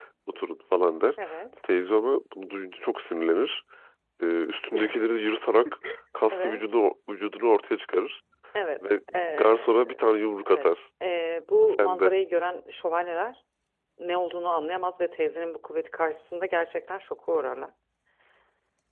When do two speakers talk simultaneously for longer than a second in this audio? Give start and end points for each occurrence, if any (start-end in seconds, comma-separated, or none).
9.4-10.7